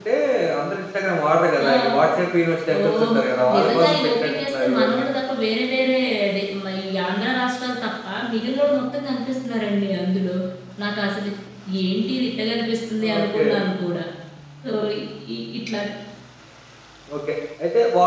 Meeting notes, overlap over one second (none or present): present